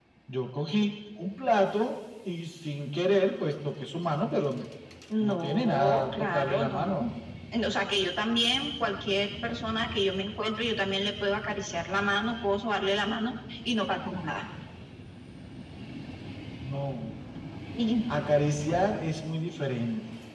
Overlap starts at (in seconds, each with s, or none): 5.2 s